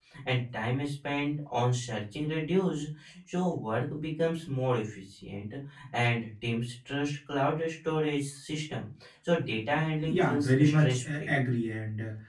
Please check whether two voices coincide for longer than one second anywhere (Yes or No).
Yes